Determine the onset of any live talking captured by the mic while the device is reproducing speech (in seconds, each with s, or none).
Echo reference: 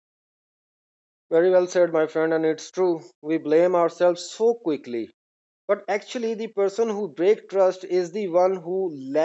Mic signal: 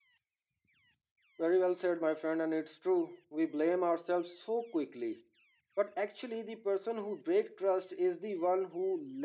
none